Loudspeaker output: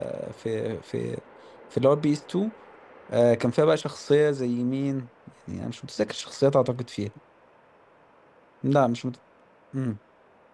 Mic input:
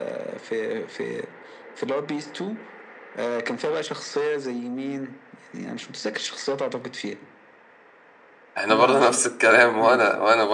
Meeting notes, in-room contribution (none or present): present